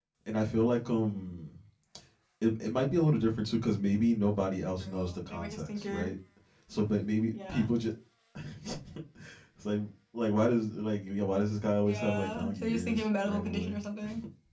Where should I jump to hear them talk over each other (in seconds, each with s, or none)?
4.8 s